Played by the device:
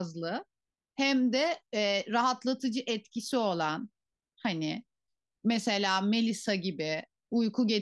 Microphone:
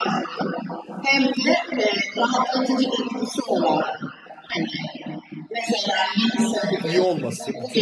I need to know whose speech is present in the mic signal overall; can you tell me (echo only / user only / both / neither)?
both